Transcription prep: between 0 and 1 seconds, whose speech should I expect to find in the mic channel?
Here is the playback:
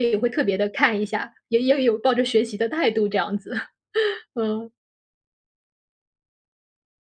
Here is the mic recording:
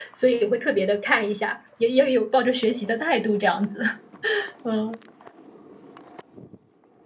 echo only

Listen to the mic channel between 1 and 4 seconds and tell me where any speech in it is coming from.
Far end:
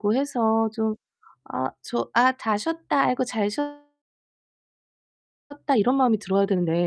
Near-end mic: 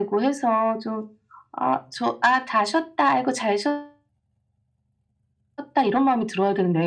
echo only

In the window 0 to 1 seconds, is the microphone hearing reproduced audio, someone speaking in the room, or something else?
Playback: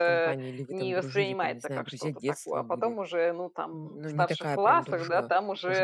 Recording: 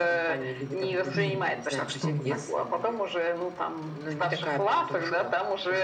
echo only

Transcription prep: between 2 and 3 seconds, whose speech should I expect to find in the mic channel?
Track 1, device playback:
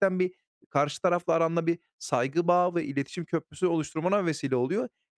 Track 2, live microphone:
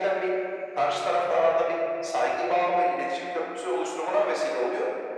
echo only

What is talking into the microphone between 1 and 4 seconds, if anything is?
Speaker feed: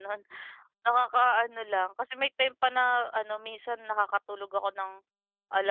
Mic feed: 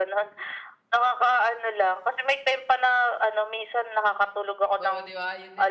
echo only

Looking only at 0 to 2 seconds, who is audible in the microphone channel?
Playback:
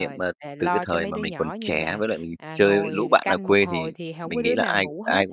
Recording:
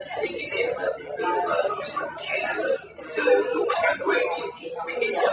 echo only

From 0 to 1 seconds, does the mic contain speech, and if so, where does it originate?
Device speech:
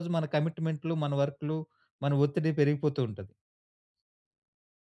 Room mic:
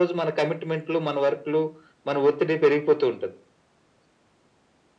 echo only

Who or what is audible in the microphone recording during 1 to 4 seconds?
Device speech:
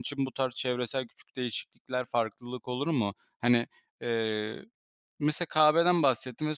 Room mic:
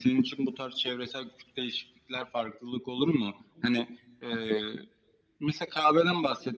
echo only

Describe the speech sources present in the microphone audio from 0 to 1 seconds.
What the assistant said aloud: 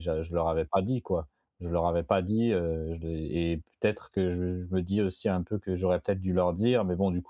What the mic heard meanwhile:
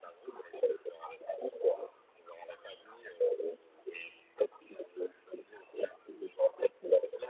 echo only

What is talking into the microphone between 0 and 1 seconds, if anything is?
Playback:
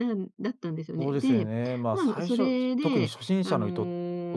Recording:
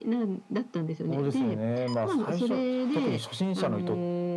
echo only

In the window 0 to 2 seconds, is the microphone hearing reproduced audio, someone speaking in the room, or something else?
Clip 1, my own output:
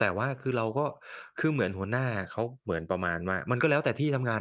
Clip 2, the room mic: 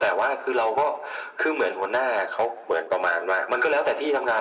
echo only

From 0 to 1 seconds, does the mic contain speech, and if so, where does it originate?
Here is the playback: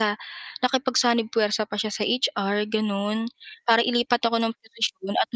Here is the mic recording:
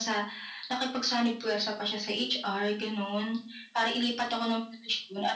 echo only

